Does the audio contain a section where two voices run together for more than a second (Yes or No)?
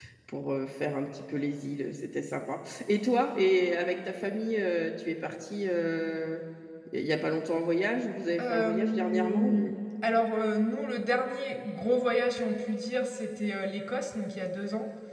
Yes